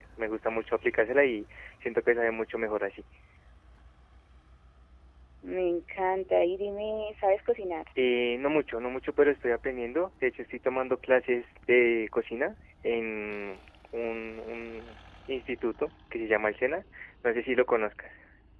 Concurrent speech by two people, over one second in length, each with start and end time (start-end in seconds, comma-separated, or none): none